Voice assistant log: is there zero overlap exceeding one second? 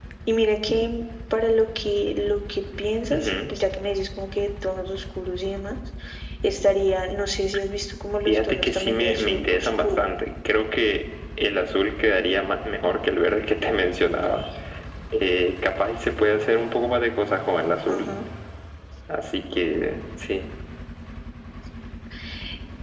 No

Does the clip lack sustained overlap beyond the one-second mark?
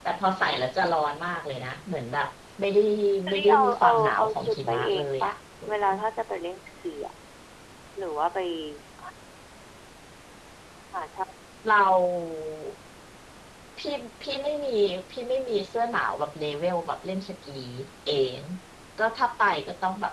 No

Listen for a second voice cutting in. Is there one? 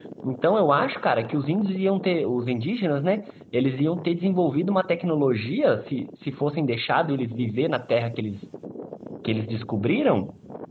No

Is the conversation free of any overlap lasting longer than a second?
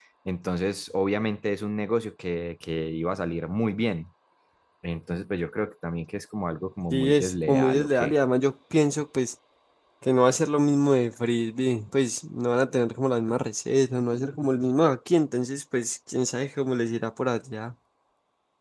No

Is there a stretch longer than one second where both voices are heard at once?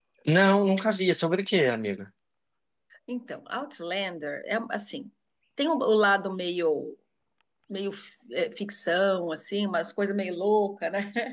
No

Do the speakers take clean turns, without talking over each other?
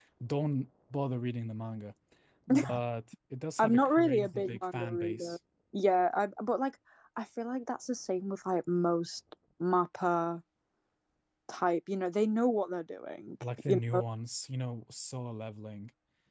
No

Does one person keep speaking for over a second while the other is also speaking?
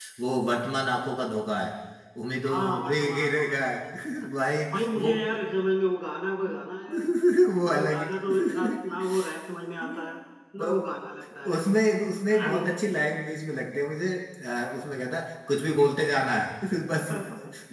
Yes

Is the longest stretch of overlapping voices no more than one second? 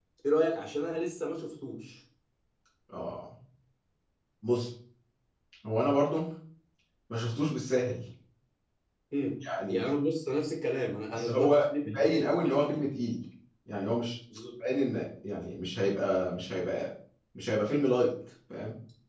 No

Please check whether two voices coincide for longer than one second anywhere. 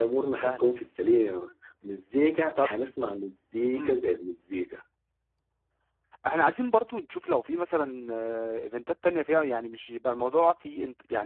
No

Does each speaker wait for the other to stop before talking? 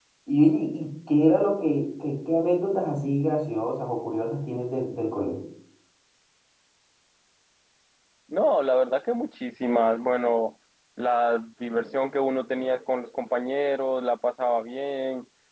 Yes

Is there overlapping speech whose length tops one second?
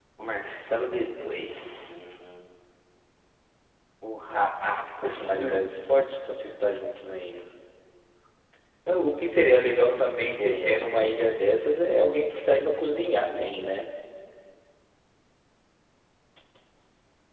No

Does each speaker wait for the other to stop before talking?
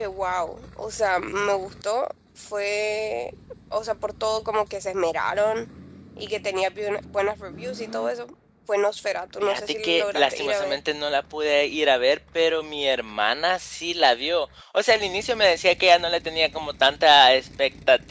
No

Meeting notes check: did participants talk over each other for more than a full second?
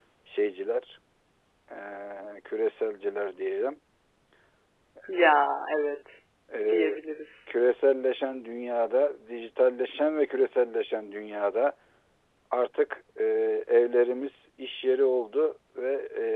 No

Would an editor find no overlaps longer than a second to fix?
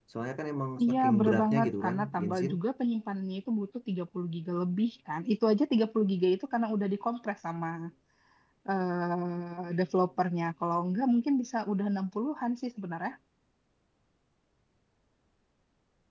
No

